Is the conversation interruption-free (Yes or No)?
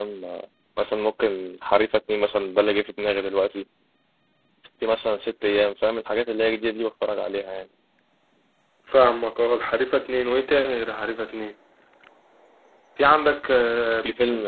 Yes